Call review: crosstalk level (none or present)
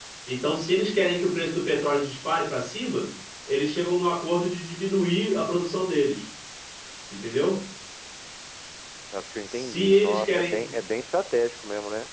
present